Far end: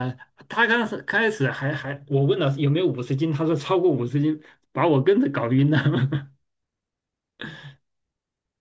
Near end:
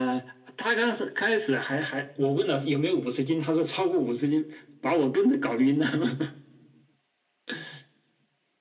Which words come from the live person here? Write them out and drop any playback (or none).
none